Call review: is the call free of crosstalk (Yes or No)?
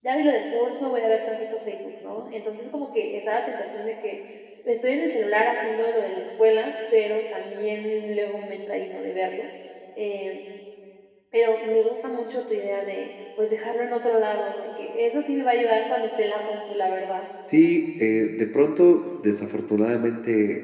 Yes